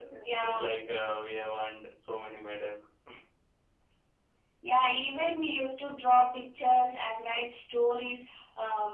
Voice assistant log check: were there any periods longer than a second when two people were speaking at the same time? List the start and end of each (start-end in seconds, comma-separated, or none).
none